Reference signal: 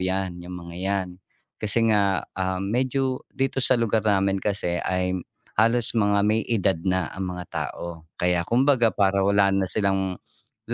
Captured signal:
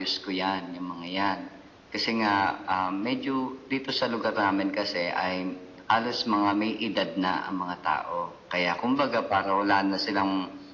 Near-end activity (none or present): none